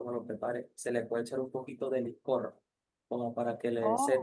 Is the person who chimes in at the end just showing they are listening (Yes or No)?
Yes